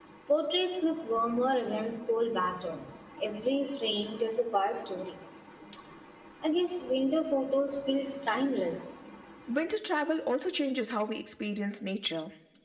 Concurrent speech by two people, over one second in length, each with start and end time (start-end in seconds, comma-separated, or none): none